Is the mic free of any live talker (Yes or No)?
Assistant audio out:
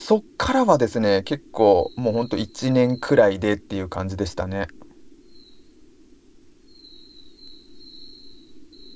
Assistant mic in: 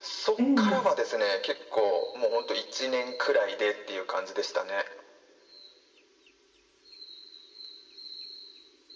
No